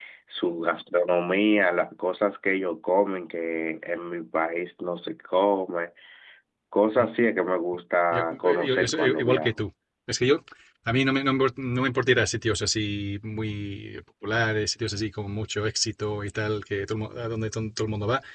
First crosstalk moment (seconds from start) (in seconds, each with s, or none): 8.1 s